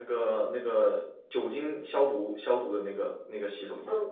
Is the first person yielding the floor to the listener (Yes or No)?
Yes